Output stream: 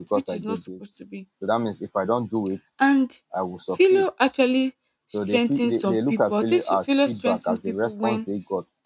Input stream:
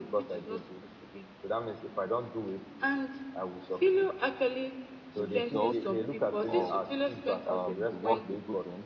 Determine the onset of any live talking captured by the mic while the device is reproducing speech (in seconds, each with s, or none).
5.2 s